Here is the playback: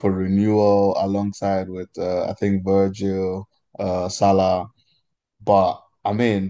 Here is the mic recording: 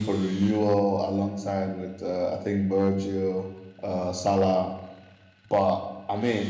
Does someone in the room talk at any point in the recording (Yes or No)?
No